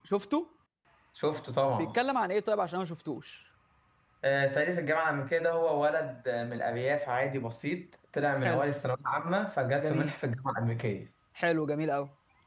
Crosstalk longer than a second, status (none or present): none